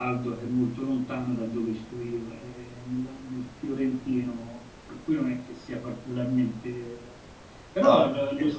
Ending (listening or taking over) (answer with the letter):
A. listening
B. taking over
A